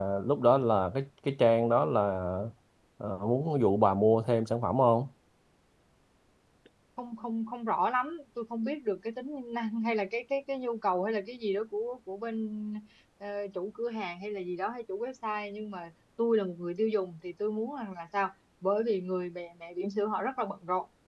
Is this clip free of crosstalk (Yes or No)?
Yes